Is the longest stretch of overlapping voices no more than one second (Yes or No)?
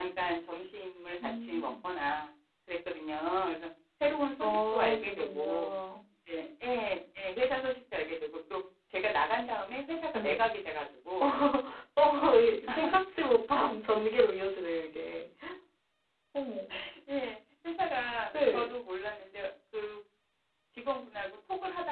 No